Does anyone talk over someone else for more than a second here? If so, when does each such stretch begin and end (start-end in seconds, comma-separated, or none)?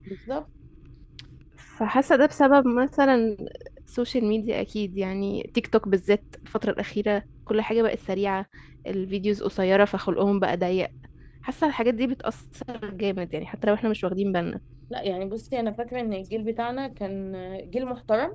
none